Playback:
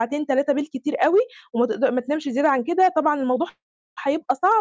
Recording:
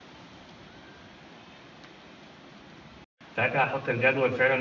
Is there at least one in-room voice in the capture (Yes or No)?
Yes